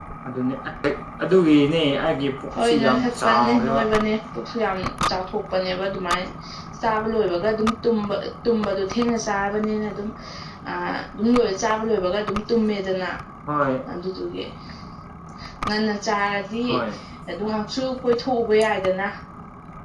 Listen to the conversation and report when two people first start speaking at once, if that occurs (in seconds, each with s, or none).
2.5 s